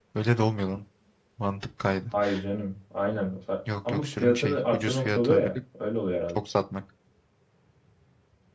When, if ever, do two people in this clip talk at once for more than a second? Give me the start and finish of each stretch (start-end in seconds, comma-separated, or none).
3.9-5.5